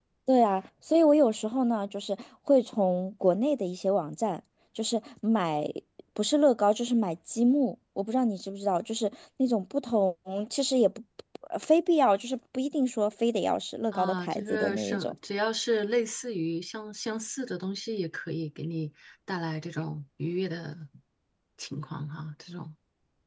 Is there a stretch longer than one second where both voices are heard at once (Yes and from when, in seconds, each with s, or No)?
Yes, from 13.9 s